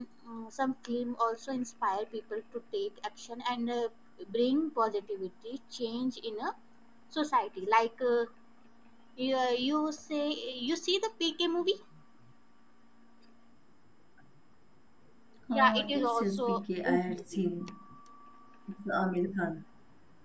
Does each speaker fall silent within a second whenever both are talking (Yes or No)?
No